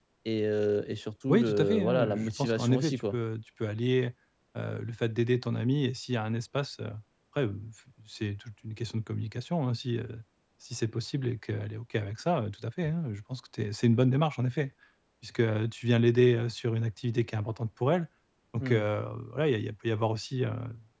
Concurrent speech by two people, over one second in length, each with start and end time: 1.3-3.2

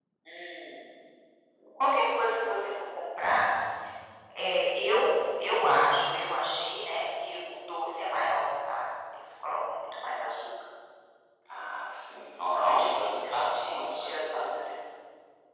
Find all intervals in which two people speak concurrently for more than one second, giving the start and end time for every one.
12.4-14.5

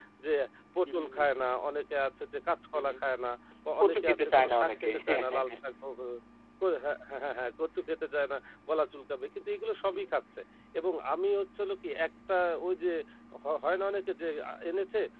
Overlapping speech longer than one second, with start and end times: 3.8-5.6

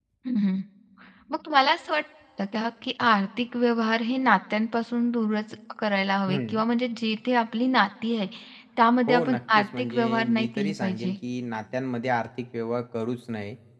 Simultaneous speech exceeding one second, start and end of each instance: 9.1-11.2

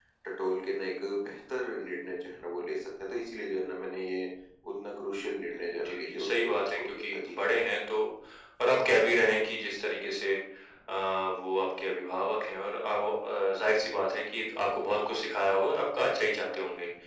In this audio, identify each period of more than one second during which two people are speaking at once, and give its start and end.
5.5-7.4

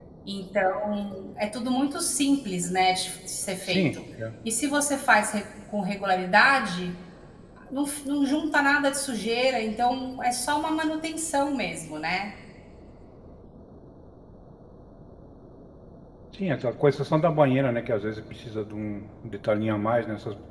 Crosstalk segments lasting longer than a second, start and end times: none

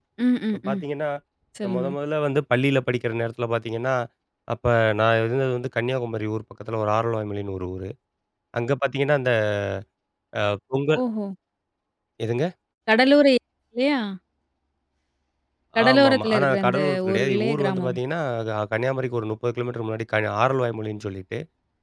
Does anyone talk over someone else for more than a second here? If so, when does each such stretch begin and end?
15.9-18.0

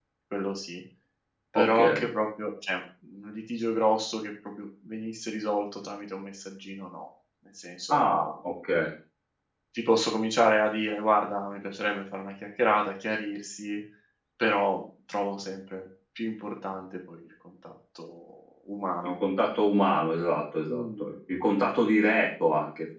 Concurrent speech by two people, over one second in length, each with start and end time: none

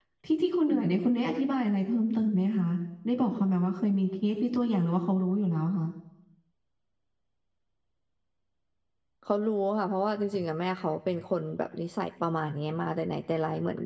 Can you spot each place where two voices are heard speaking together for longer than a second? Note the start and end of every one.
none

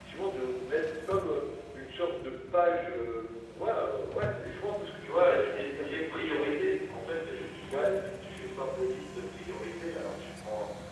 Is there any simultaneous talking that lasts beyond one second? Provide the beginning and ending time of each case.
5.0-6.7

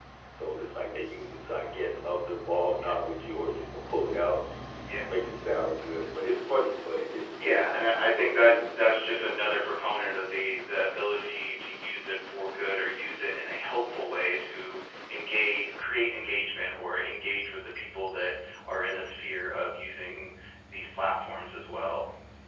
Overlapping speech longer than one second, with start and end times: 7.3-9.6

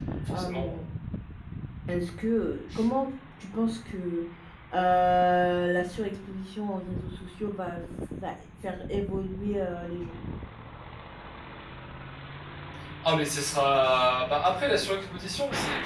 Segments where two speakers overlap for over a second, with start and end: none

